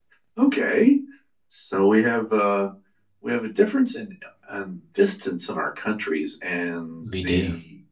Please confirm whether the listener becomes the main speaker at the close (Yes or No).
No